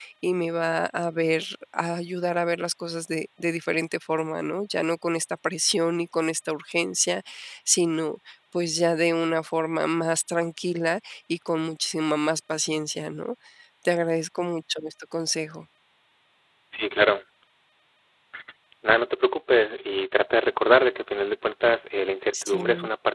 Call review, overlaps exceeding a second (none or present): none